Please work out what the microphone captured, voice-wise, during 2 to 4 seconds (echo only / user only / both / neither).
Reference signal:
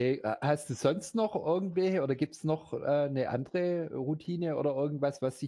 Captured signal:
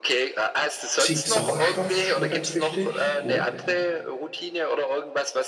both